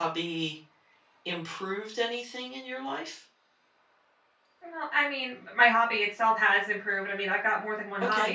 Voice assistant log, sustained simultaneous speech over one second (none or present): none